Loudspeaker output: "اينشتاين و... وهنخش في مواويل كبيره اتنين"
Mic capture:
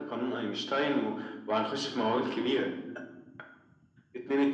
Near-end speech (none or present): none